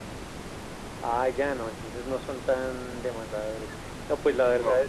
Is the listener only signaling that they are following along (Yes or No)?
Yes